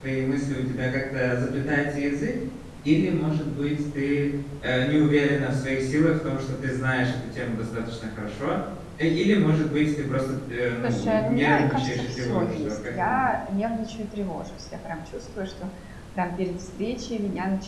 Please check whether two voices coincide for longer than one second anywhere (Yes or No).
Yes